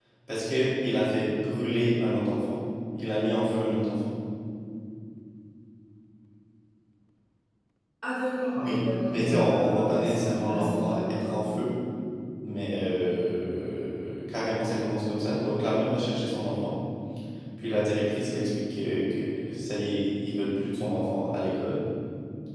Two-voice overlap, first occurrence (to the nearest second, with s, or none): 9 s